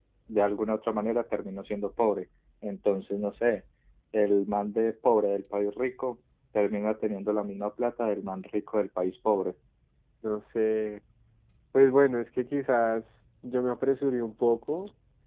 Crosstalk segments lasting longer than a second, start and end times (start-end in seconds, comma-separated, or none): none